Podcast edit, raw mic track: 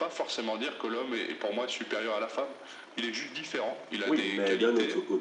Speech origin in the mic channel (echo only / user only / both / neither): both